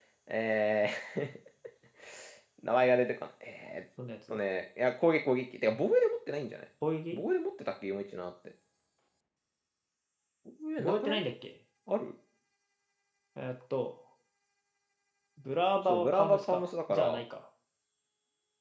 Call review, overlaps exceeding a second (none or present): present